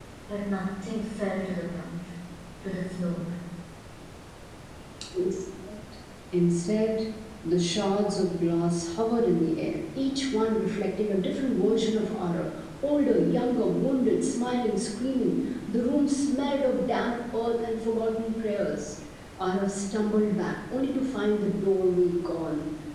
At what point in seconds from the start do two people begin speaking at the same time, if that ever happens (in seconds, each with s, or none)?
none